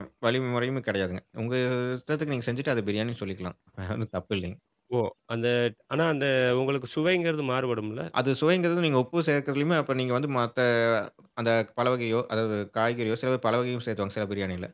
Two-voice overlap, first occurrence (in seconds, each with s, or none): none